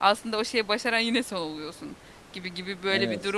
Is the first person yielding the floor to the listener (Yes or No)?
No